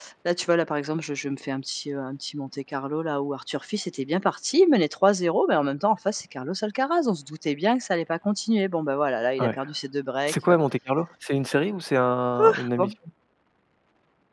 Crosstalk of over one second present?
No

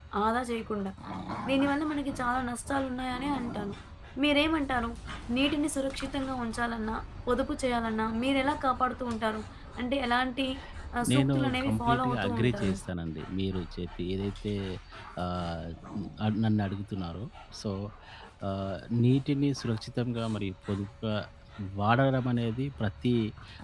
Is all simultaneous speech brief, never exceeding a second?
No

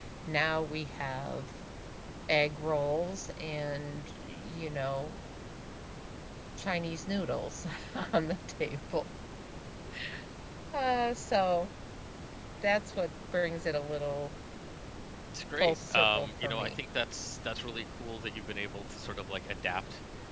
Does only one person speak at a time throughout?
No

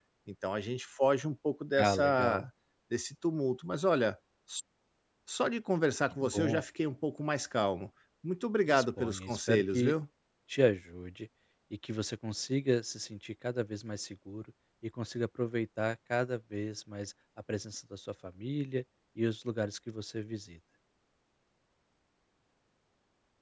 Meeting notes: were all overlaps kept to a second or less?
No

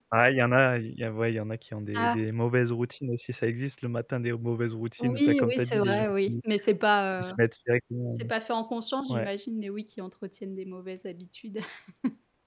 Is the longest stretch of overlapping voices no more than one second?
No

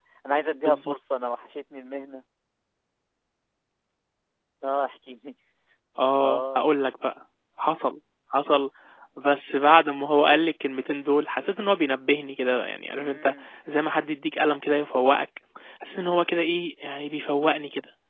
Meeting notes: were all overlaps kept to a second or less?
Yes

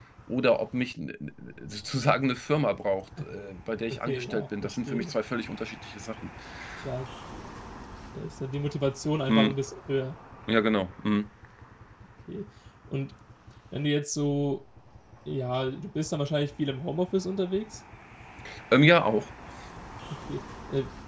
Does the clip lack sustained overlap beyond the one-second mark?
No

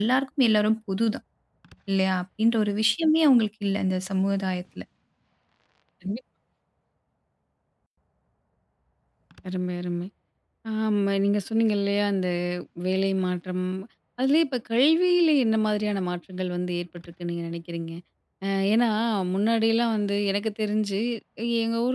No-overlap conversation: Yes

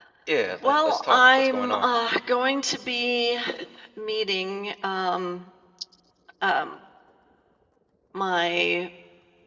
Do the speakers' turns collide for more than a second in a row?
Yes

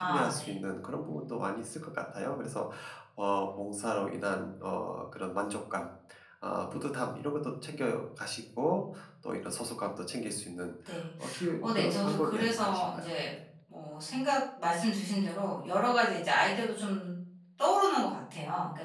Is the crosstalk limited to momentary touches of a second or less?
No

